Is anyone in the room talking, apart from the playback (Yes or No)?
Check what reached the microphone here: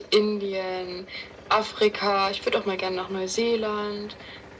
No